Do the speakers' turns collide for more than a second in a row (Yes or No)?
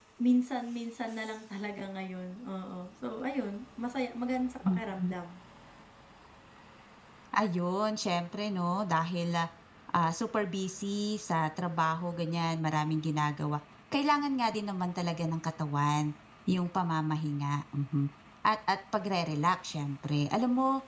No